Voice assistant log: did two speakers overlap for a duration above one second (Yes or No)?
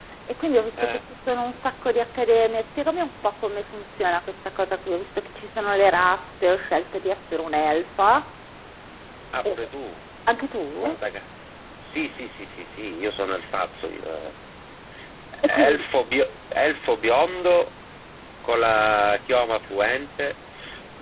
No